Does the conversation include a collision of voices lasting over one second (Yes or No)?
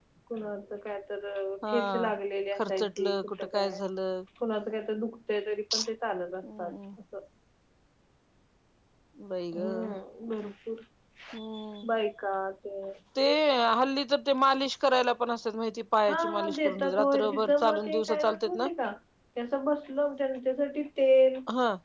Yes